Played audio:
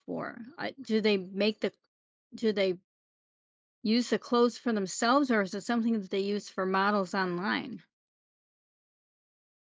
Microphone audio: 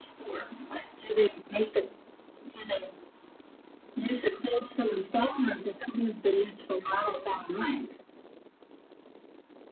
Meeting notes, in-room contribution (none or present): none